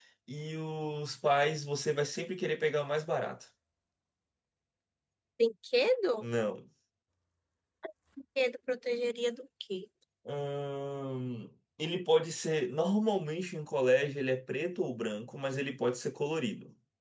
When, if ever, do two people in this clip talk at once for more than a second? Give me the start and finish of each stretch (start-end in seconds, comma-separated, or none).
none